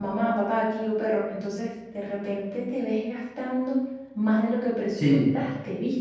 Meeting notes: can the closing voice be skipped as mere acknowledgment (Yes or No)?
Yes